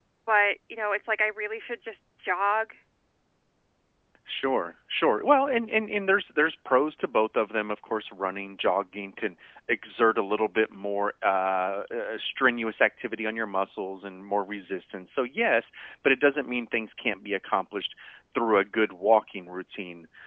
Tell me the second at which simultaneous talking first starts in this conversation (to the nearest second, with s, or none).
none